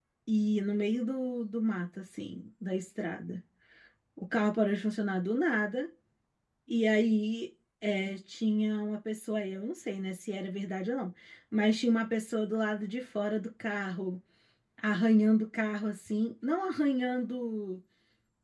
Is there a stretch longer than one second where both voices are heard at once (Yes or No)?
No